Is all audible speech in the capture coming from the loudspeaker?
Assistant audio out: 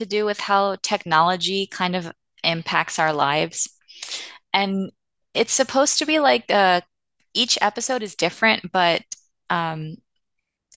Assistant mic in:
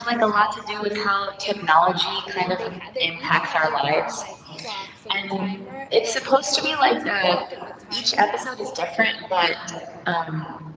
No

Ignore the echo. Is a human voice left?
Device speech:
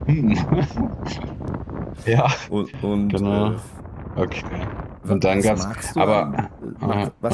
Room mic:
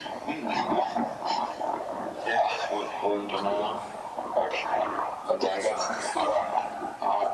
No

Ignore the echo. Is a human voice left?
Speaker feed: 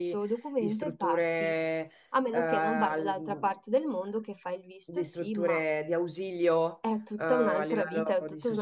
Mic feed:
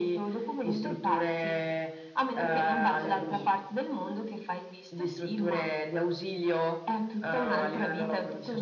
Yes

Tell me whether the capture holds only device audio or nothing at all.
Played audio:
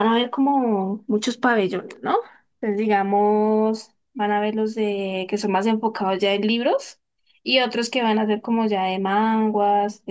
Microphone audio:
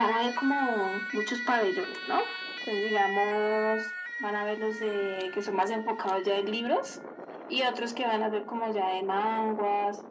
Yes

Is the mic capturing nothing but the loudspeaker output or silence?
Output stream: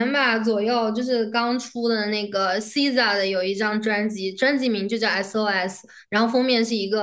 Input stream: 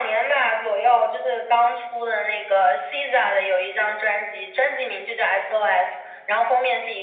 Yes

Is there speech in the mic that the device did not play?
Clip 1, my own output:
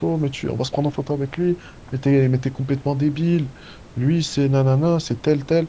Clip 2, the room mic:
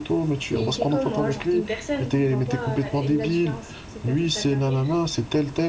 Yes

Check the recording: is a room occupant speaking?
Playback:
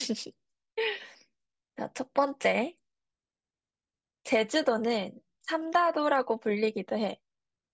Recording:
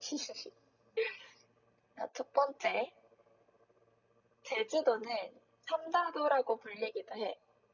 No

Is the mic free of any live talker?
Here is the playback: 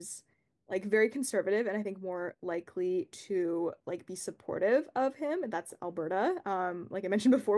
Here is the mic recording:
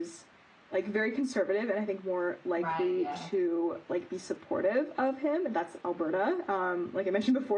No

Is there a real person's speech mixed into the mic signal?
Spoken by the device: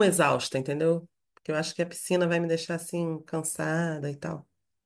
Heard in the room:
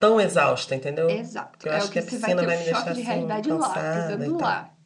Yes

